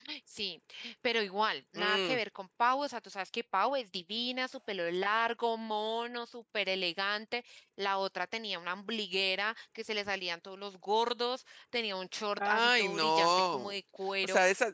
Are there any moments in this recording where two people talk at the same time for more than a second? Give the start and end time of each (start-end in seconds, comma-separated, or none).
12.4-13.7